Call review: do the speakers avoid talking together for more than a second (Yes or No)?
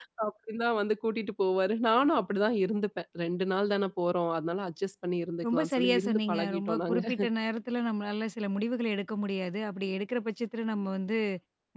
No